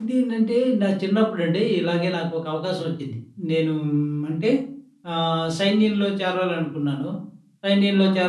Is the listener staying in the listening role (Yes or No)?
Yes